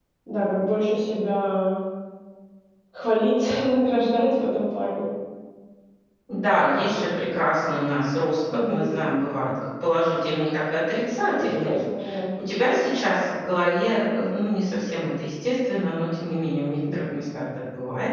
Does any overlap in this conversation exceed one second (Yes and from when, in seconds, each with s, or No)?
No